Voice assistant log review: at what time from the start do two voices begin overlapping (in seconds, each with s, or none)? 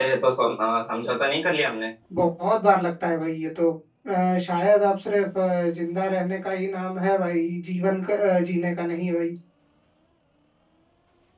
none